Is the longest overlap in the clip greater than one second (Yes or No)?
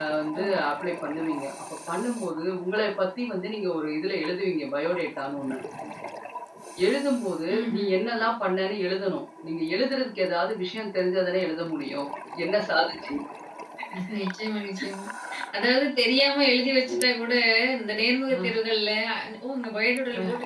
No